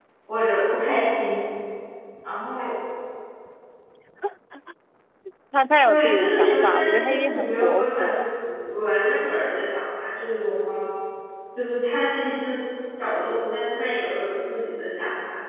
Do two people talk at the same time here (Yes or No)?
Yes